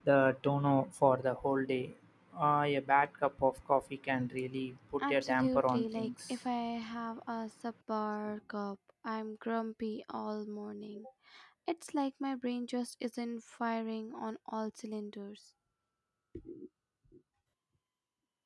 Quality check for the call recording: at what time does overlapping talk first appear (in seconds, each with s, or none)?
5.0 s